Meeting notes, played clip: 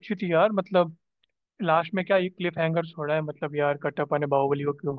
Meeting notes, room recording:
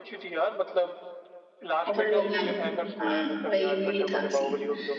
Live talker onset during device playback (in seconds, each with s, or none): 1.9 s